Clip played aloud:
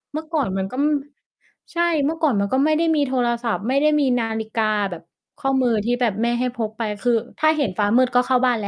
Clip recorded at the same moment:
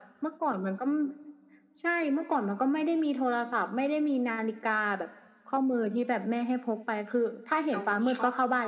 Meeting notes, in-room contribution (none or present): present